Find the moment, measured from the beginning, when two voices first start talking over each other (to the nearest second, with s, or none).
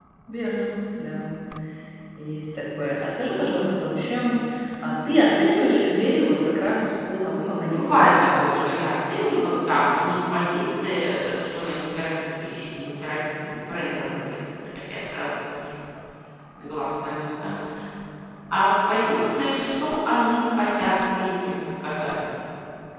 7 s